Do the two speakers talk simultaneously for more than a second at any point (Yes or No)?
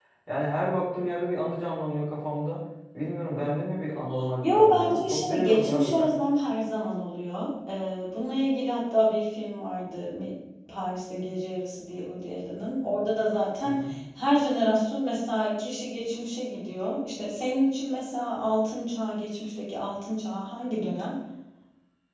Yes